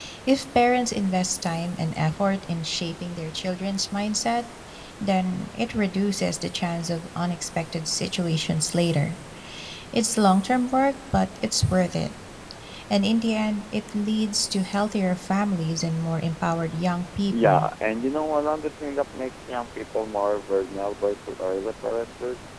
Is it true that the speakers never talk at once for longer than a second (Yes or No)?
Yes